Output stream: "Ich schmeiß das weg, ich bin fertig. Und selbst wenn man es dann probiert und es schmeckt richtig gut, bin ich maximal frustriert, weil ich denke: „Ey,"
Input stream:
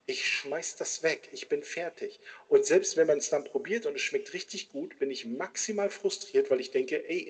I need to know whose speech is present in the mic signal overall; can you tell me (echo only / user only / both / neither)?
echo only